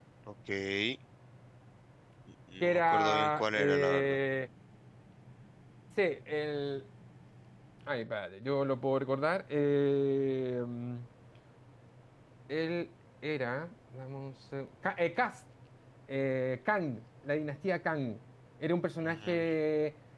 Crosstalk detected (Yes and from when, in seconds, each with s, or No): Yes, from 2.6 s